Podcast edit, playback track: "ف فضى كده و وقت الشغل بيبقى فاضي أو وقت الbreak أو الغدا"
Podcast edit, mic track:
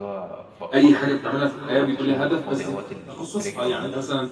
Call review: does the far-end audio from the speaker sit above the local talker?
No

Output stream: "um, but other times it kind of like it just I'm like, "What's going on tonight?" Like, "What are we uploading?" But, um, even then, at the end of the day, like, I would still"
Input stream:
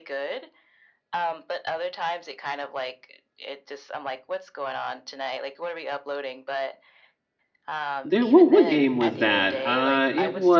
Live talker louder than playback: Yes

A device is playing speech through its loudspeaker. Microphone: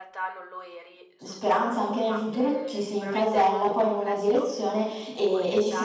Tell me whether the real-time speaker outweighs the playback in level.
Yes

